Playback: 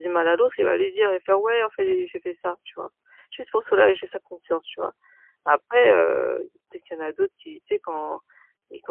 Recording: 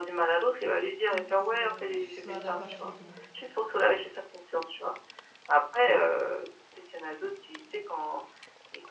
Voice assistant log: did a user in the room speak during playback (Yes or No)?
Yes